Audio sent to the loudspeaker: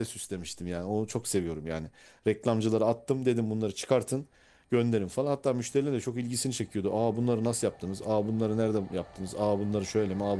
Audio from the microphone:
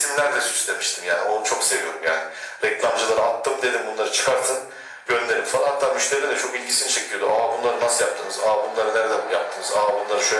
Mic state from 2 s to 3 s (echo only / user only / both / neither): echo only